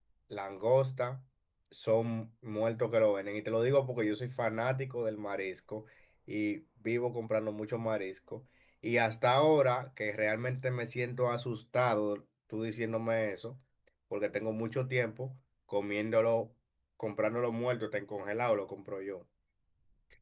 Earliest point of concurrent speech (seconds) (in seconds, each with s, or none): none